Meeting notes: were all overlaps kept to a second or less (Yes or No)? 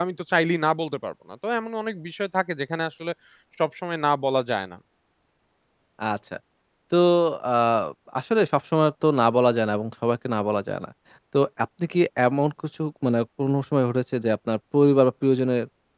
Yes